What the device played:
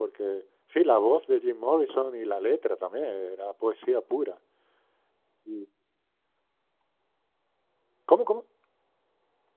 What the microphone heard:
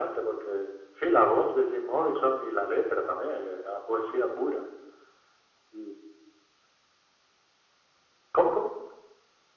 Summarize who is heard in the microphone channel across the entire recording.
echo only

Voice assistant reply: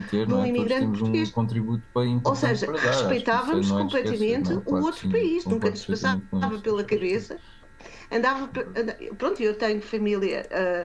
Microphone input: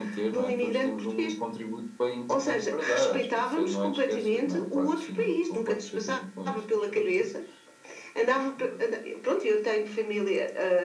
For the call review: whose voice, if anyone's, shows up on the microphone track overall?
echo only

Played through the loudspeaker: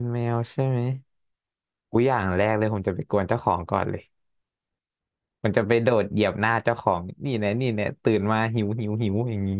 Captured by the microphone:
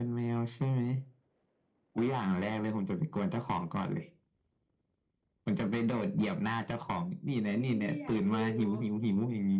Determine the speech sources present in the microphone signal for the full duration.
both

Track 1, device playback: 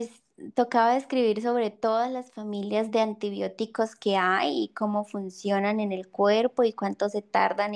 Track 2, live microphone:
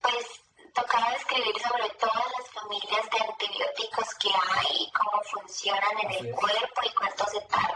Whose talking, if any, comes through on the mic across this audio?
both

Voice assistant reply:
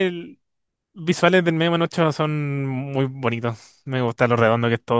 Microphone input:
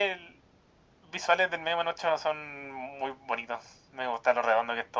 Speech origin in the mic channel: echo only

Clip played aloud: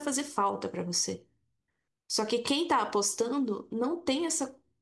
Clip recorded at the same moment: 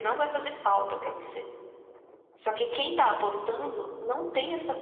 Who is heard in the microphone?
echo only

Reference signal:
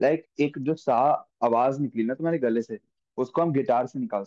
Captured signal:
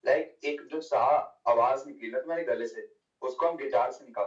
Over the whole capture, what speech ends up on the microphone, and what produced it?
echo only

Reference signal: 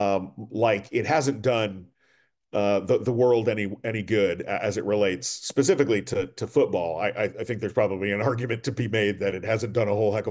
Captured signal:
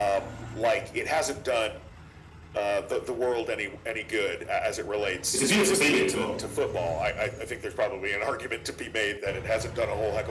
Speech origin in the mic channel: both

